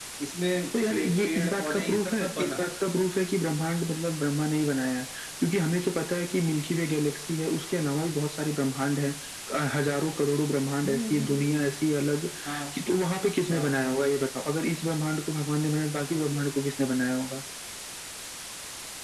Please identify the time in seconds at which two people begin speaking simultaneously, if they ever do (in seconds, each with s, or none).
0.9 s